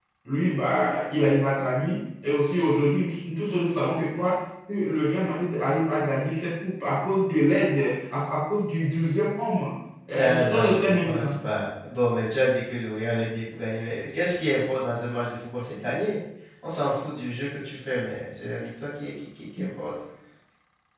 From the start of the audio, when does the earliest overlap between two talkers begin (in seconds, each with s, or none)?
10.1 s